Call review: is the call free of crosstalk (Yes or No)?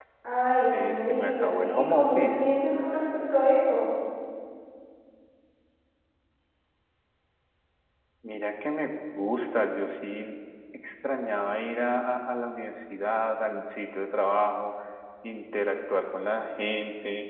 No